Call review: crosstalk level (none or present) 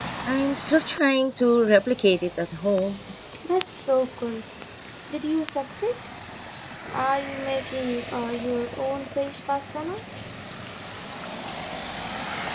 none